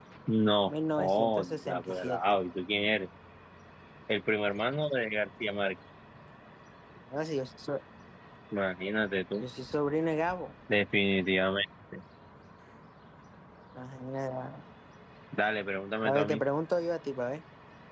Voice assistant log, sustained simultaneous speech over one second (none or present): present